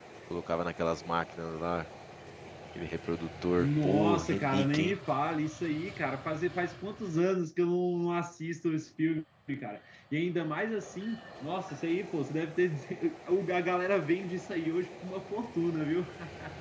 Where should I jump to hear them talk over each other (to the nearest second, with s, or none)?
4 s